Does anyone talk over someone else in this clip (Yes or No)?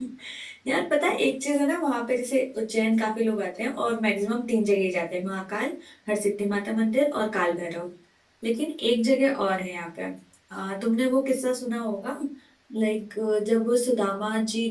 No